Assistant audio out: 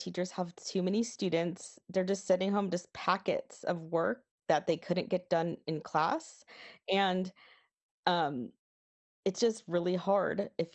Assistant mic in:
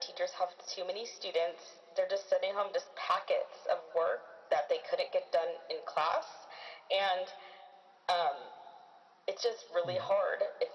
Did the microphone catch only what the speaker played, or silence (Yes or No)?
No